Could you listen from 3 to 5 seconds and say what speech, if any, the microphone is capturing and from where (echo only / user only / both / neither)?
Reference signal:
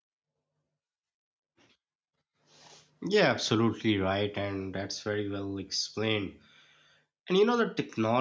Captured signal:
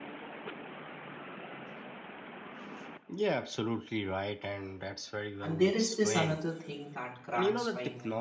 echo only